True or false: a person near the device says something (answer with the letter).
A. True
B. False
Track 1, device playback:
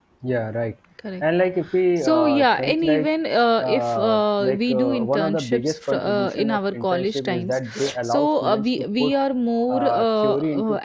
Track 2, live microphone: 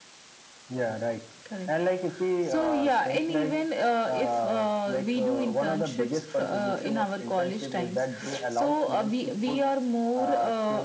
B